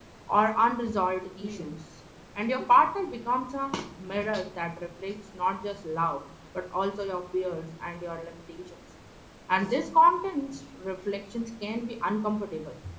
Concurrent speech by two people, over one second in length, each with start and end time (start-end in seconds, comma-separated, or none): none